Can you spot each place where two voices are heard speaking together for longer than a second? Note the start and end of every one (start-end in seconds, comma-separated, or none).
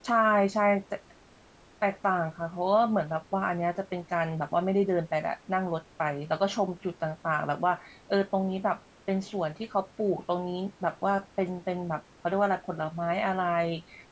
none